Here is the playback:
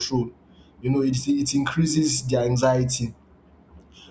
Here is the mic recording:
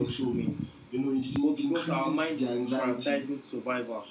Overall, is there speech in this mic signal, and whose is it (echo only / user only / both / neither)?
both